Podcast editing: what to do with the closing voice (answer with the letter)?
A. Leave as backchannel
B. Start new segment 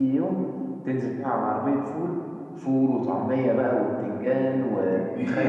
B